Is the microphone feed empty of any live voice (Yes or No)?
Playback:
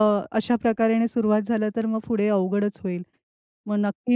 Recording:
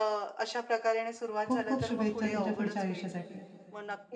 No